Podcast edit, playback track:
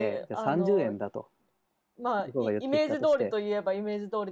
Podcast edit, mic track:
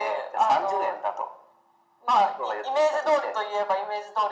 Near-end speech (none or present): none